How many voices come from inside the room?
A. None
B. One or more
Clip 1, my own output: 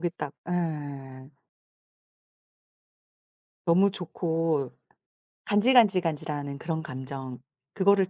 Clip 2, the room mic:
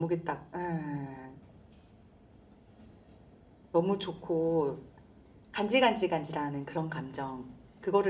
A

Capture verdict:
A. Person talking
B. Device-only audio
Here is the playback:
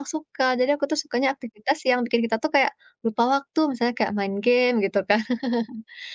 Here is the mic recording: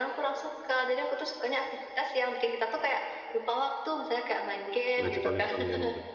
A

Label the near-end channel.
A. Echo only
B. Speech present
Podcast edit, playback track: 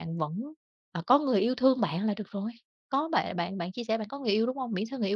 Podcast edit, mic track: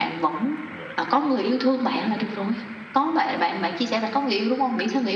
A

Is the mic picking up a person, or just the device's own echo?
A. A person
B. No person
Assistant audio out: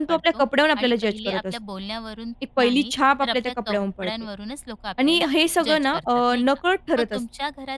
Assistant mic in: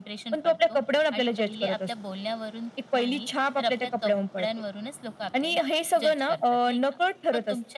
B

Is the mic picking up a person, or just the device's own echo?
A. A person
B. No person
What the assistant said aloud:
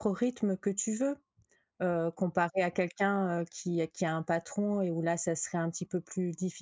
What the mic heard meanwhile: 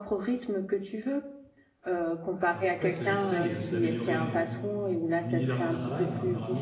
A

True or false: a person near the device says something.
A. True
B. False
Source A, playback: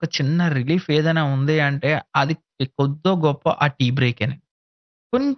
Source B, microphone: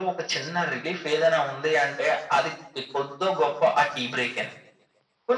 B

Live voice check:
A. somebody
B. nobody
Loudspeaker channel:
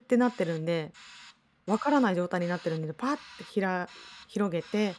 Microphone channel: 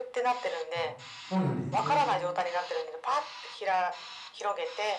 A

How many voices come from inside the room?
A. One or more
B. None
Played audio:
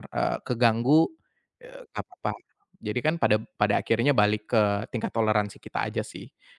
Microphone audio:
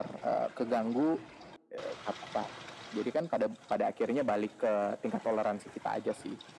B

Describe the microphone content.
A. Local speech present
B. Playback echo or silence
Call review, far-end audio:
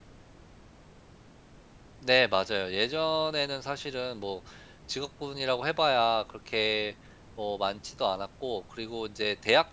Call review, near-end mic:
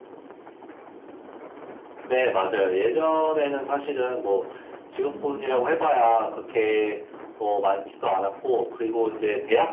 A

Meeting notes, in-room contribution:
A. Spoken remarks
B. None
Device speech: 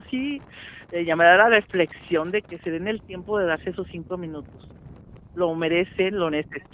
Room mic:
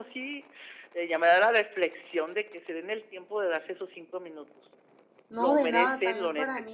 A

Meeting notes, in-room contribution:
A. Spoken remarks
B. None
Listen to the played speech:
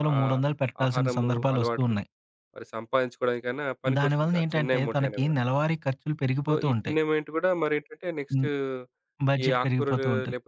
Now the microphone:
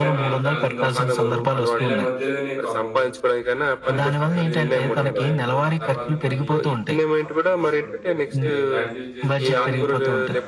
A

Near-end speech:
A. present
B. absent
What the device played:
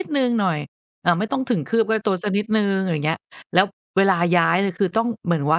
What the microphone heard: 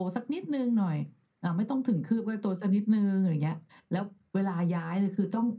B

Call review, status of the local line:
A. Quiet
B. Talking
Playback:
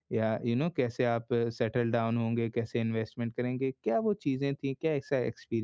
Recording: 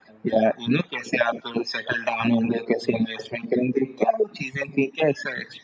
A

